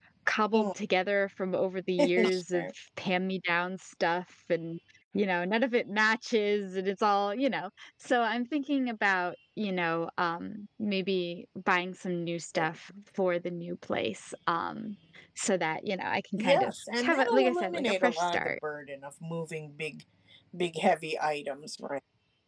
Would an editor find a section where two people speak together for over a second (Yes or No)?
Yes